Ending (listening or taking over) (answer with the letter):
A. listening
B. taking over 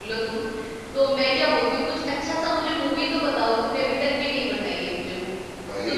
A